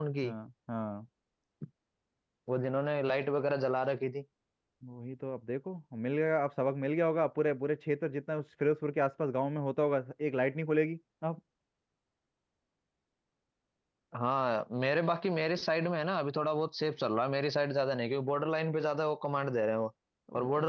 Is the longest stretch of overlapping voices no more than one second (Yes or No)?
Yes